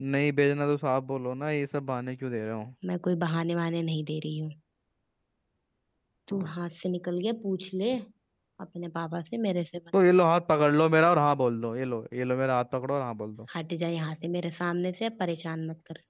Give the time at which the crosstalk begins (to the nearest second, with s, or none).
none